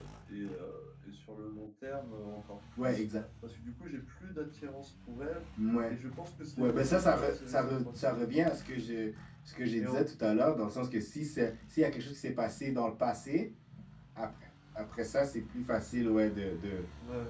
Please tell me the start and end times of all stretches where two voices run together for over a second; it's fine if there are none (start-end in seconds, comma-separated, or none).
6.6-8.0